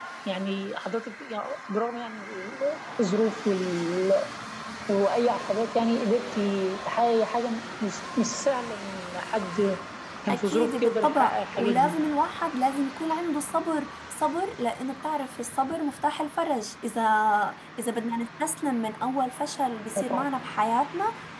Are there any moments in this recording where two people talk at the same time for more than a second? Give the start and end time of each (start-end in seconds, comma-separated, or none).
10.3-11.9